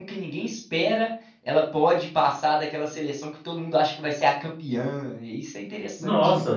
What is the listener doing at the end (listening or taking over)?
taking over